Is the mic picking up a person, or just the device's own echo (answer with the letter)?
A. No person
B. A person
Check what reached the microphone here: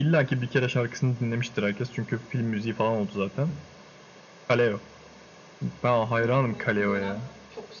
B